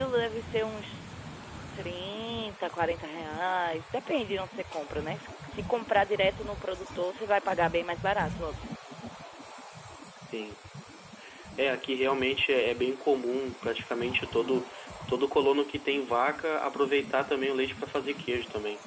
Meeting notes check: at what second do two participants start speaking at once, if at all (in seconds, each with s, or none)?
none